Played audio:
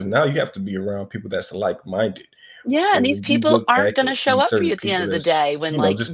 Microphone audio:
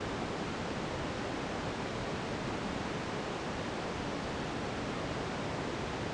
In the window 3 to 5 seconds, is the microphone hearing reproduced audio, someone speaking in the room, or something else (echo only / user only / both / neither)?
neither